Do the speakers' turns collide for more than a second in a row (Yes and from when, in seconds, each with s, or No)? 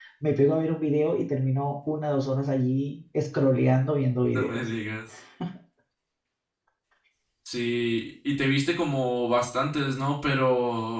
No